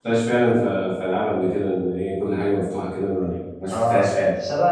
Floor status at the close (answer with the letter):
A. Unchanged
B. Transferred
B